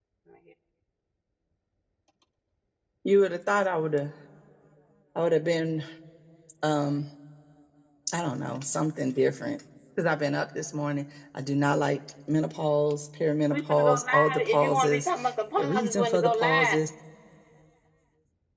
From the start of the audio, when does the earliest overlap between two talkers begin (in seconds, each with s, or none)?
13.5 s